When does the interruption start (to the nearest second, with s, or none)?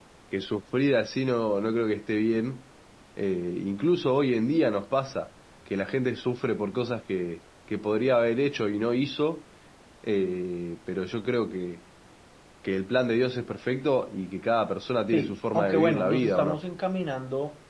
15 s